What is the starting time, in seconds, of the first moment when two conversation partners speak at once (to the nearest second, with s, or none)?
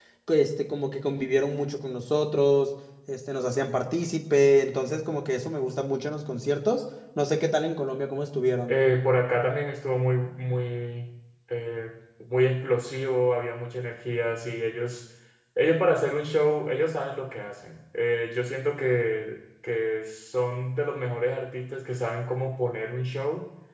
none